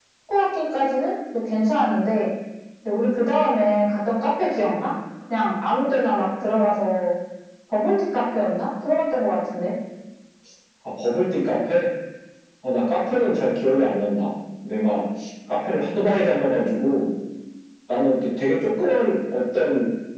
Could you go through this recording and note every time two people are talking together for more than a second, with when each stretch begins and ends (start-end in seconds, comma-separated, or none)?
none